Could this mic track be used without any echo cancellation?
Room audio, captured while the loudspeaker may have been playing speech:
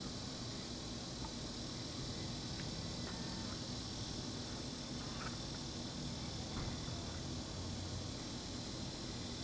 Yes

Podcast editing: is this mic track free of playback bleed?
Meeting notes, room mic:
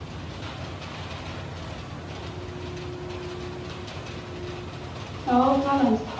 Yes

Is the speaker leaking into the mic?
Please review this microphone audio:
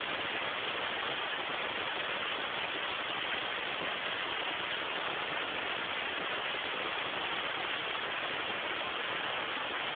No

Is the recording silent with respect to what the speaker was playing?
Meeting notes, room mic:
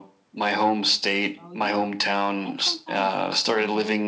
No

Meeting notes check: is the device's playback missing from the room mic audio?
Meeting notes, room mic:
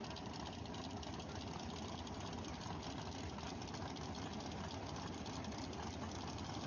Yes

